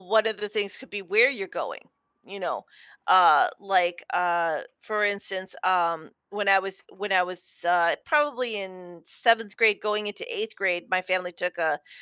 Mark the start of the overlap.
none

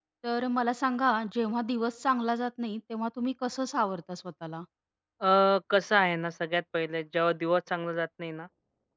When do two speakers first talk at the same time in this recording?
none

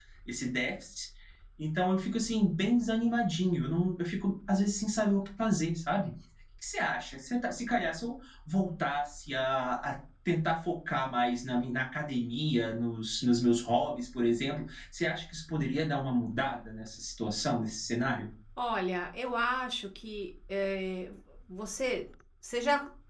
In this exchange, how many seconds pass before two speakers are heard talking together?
none

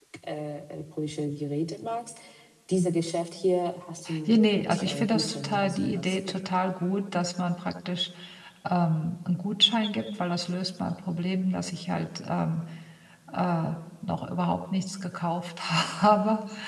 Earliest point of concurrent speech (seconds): 4.3 s

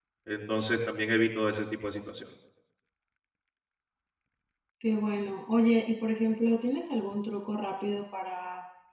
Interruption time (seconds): none

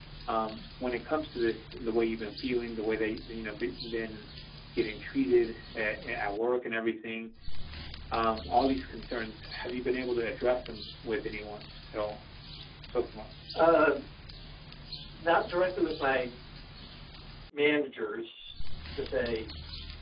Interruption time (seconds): none

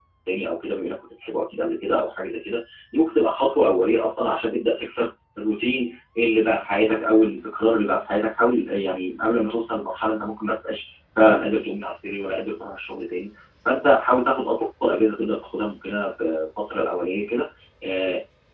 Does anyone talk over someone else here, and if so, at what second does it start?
none

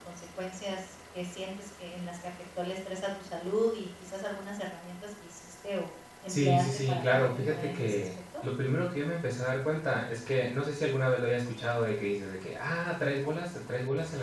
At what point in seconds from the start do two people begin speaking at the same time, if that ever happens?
6.3 s

